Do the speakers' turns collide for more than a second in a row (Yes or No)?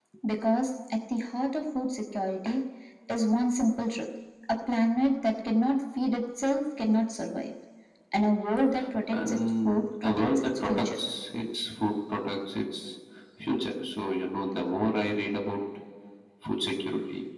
Yes